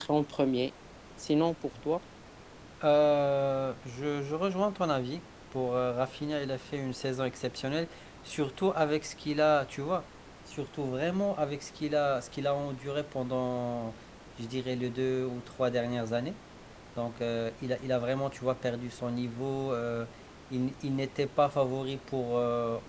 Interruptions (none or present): none